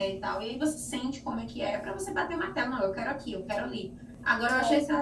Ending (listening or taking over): listening